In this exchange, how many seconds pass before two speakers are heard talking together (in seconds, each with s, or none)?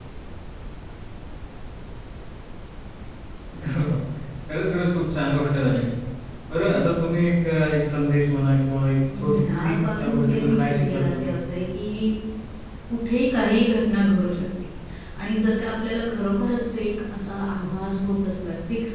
9.1 s